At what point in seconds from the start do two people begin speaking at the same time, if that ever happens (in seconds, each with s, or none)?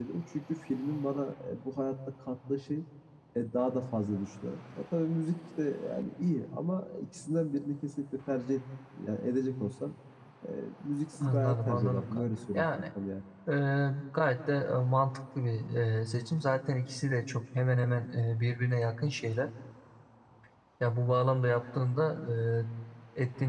11.2 s